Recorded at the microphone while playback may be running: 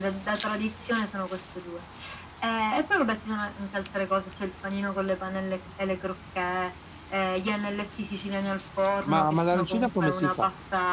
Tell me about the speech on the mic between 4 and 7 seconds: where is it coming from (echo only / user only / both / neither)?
echo only